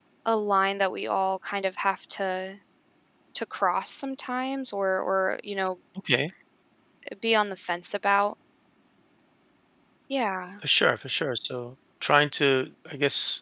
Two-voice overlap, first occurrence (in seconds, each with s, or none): none